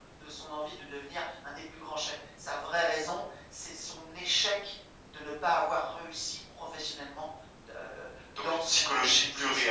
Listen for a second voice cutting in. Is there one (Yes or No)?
Yes